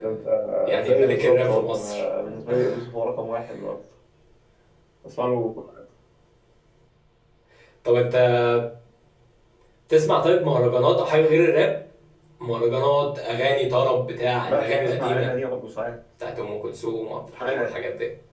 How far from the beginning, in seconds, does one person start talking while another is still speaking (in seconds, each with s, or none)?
0.8 s